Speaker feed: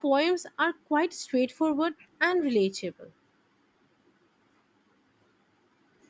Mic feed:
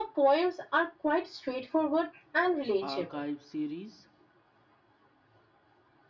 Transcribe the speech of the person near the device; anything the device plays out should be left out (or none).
archive series